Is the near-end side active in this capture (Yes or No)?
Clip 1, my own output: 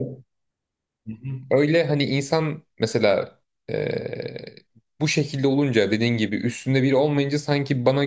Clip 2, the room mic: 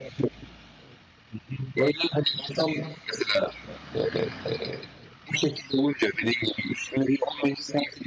No